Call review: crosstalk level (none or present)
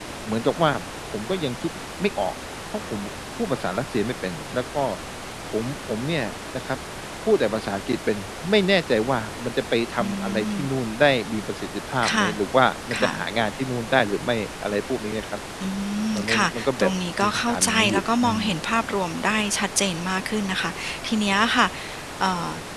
present